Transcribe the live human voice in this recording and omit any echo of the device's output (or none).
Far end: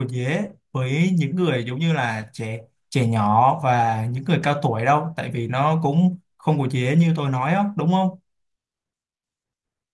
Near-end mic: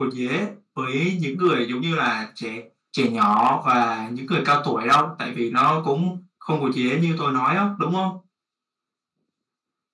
none